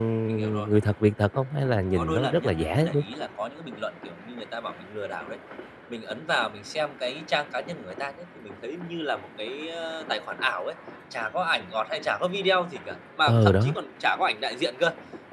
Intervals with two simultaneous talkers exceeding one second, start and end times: 1.6-3.0

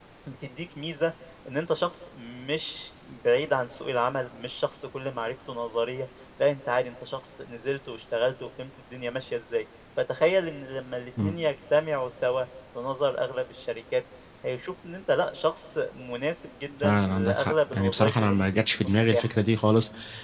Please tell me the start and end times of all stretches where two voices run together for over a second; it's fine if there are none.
16.8-19.3

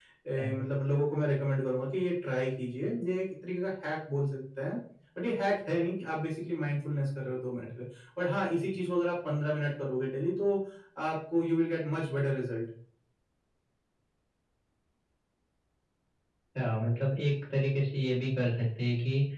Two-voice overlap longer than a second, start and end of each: none

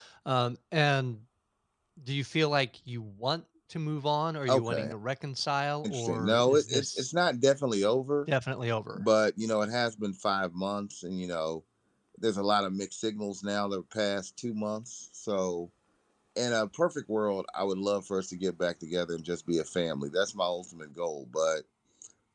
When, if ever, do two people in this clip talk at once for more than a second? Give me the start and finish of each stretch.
5.8-7.1

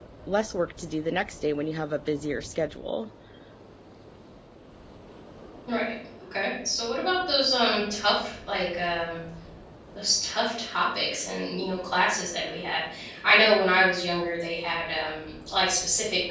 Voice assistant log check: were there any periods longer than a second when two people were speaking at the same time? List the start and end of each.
none

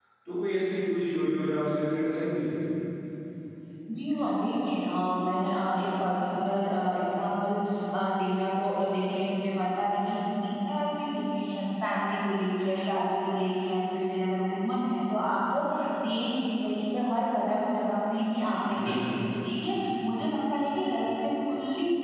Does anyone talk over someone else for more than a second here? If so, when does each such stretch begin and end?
none

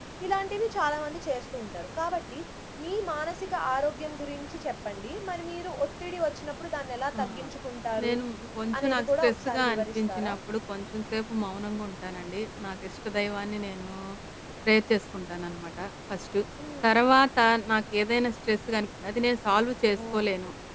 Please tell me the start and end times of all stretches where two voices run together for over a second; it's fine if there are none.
8.8-10.3

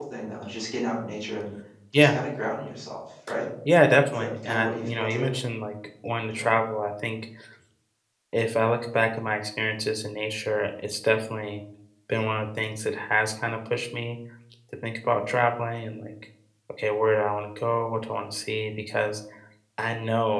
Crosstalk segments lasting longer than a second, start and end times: 4.1-5.3

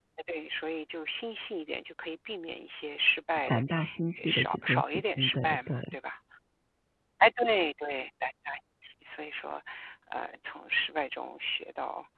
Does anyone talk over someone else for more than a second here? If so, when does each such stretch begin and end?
4.2-5.8

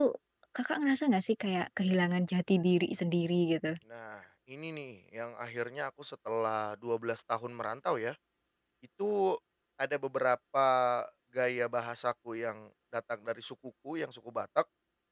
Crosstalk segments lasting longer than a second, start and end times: none

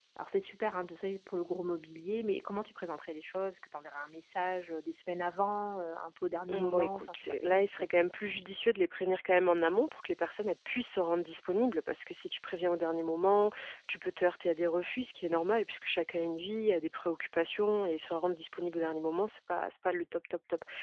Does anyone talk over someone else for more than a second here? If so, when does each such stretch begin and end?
6.5-8.0

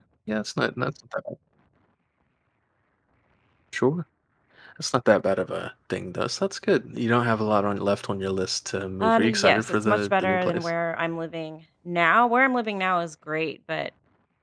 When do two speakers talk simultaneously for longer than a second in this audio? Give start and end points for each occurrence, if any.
9.0-10.7

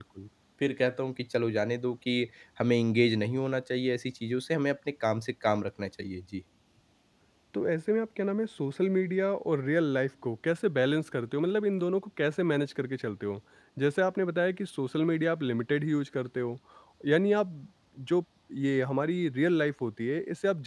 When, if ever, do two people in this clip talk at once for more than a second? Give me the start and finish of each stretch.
none

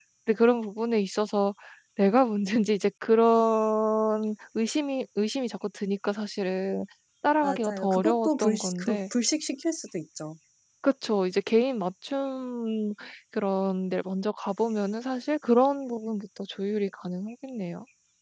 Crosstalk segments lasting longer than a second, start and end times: 7.4-9.0

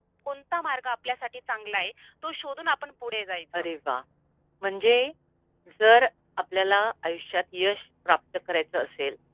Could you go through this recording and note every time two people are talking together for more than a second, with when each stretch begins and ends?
none

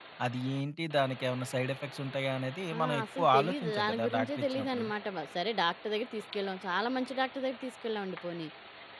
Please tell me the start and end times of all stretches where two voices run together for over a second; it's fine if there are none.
2.8-4.8

